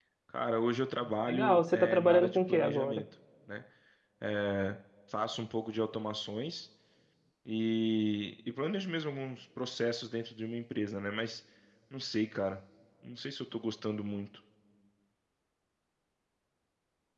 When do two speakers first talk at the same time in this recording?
1.3 s

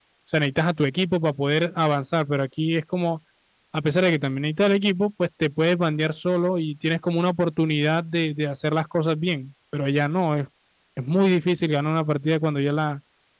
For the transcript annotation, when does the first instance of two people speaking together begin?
none

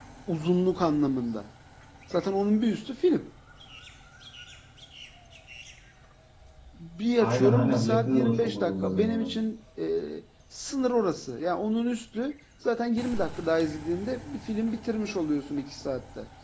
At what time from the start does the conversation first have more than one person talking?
7.2 s

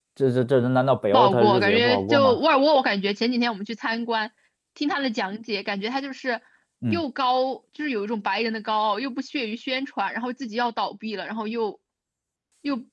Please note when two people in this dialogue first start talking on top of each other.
1.1 s

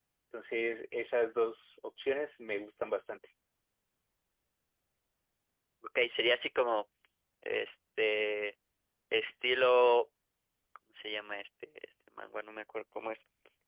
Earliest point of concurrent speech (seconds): none

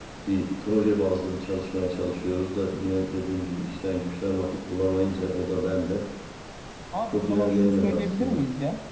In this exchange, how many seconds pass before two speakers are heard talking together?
7.1 s

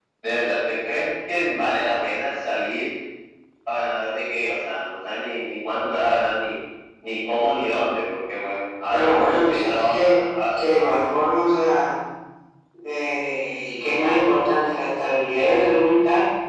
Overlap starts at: 8.9 s

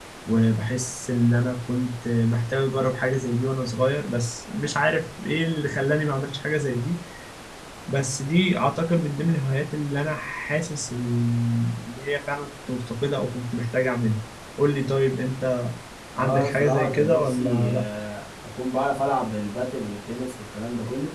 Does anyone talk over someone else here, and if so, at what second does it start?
16.2 s

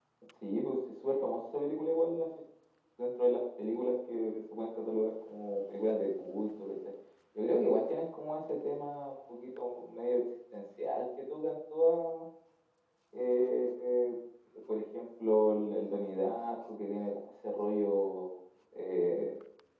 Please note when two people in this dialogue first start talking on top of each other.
none

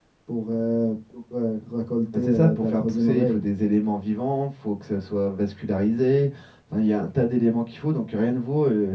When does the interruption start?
2.1 s

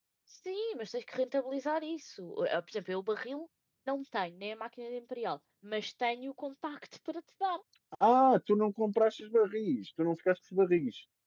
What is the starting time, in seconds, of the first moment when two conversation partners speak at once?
none

